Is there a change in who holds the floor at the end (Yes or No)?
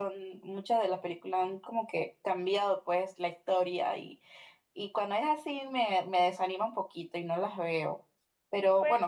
No